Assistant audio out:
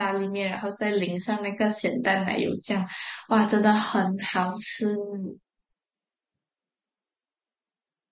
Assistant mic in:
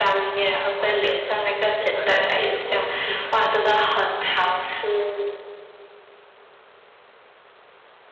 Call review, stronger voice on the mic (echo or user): echo